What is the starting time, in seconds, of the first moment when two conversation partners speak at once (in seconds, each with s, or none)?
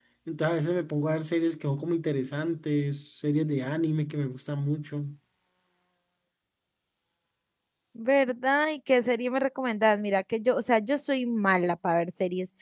none